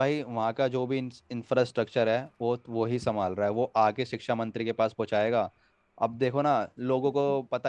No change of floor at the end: No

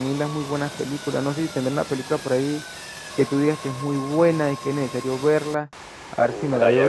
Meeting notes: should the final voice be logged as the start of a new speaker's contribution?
Yes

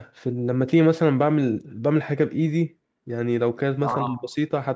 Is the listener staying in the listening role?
Yes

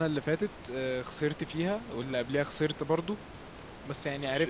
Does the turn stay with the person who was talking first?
Yes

